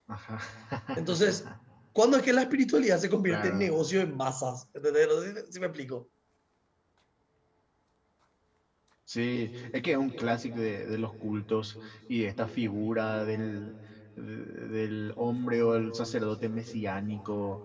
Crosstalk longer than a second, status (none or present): none